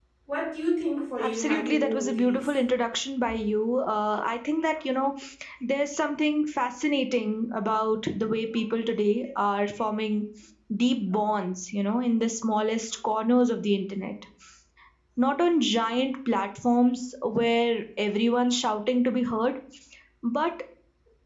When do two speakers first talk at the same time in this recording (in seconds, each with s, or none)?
1.2 s